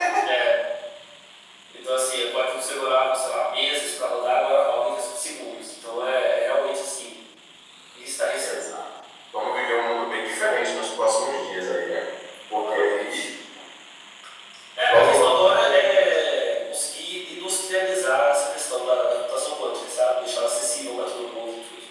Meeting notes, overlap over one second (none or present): present